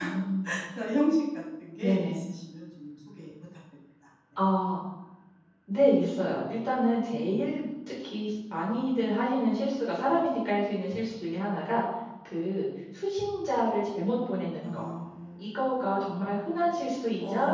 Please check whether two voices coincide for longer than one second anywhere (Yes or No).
No